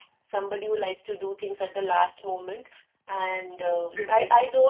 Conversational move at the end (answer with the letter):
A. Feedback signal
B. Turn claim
A